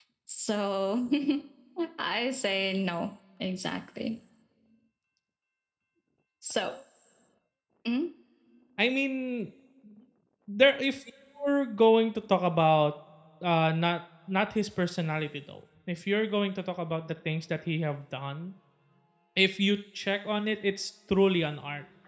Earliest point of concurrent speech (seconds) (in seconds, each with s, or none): none